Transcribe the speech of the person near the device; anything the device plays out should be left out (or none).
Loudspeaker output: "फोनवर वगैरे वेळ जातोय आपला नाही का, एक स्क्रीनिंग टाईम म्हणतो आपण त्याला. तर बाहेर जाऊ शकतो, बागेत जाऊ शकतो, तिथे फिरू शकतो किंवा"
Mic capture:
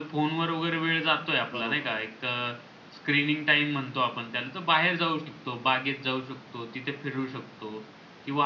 बरोबर.